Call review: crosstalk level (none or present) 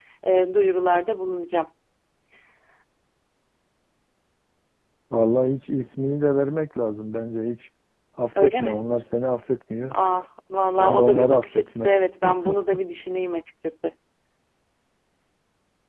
present